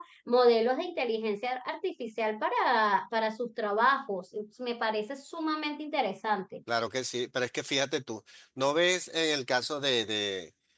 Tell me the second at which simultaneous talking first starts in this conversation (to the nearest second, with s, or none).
none